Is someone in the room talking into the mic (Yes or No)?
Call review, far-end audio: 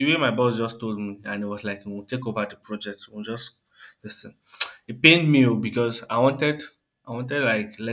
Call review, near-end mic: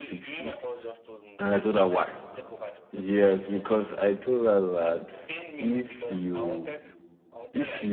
Yes